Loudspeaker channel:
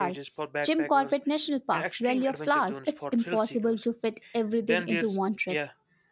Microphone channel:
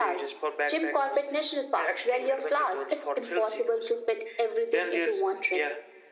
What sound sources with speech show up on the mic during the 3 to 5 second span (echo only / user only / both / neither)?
echo only